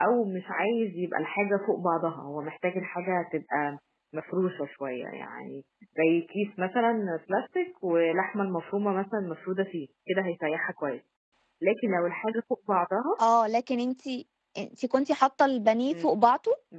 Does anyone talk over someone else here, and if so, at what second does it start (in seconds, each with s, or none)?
none